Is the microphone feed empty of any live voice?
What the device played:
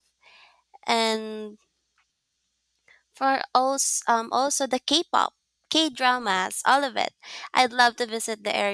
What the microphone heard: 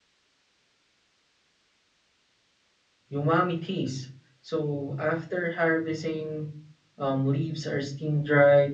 No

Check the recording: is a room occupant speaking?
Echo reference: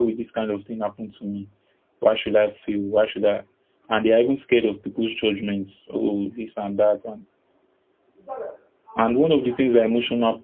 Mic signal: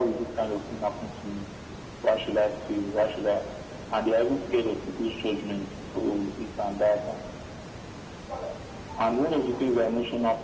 No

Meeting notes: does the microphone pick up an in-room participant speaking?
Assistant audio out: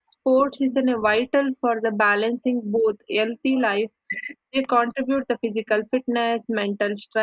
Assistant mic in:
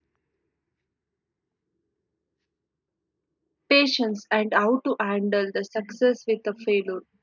Yes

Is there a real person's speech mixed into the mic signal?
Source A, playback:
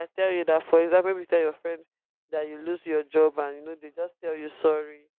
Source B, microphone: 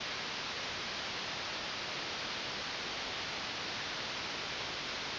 No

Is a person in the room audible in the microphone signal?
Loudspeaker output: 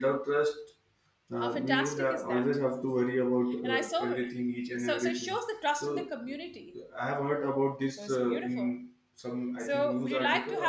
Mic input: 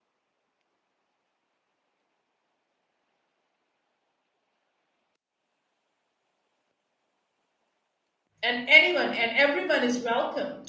Yes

